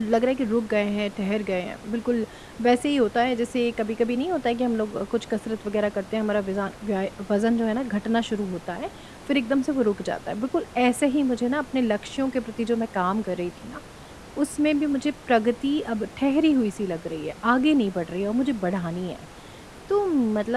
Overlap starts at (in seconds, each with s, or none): none